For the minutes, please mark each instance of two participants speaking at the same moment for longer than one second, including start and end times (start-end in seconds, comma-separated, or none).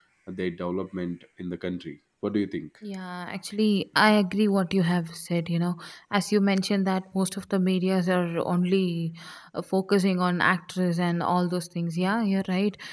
none